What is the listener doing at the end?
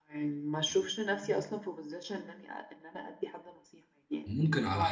taking over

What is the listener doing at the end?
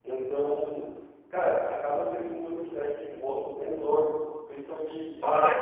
listening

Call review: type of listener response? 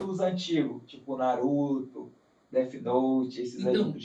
taking over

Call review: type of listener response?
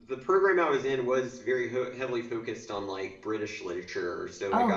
listening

